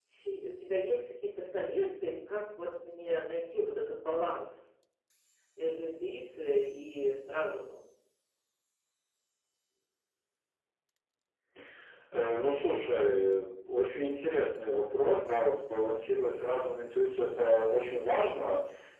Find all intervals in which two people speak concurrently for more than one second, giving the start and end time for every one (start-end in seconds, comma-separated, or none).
none